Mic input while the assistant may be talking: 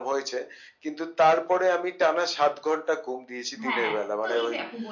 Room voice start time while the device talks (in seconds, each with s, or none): 3.6 s